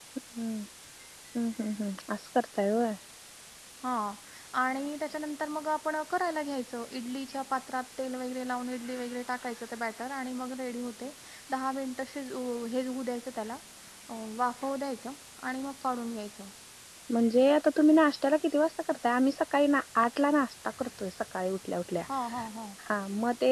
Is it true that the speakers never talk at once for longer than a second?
Yes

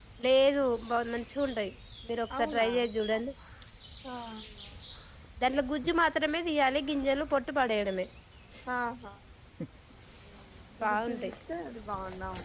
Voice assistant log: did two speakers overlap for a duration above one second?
No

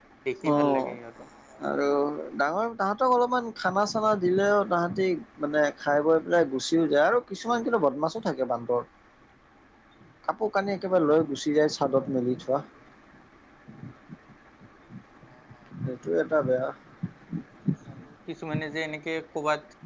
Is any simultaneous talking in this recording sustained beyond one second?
No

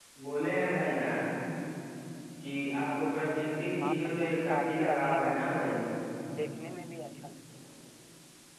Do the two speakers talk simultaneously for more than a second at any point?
Yes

